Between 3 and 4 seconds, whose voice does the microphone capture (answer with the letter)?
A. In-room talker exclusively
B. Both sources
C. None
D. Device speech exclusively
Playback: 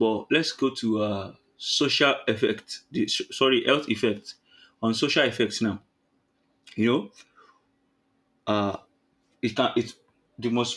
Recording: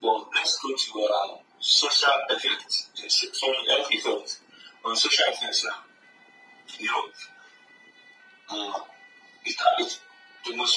D